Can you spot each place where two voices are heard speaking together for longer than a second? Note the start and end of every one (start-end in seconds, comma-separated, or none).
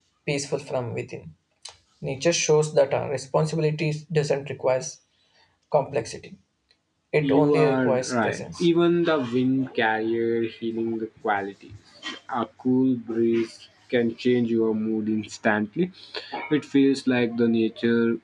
7.2-8.7